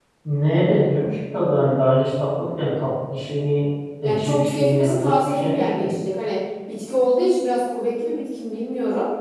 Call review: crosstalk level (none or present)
present